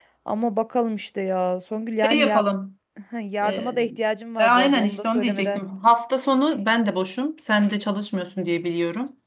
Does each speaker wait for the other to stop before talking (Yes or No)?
No